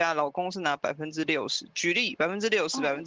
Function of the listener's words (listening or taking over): listening